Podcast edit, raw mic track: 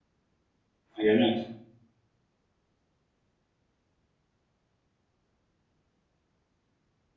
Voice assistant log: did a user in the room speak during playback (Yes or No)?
Yes